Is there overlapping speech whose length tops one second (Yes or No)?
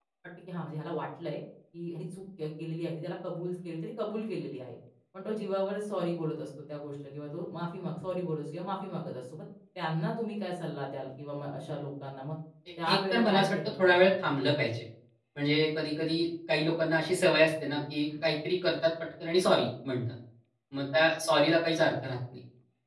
Yes